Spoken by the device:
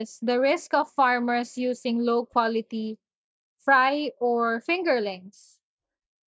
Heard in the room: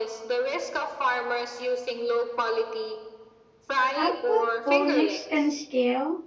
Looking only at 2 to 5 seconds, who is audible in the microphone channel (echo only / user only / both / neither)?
both